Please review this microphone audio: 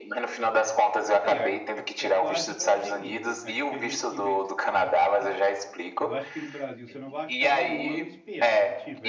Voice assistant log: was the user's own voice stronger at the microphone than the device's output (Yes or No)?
No